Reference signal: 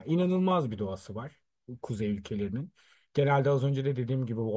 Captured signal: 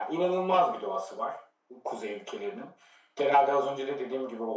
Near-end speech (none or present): none